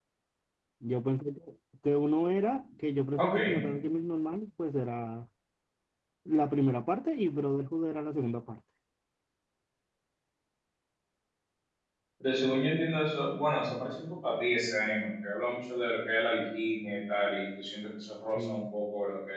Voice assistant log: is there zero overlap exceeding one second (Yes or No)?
Yes